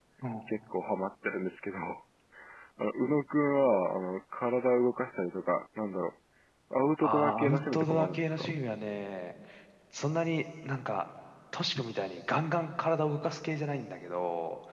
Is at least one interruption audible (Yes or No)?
Yes